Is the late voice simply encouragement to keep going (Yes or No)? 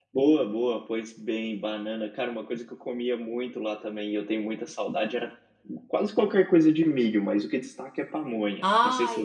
No